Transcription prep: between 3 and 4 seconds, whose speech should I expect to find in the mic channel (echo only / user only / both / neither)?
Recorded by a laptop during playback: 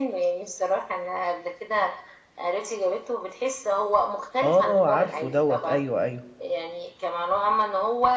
echo only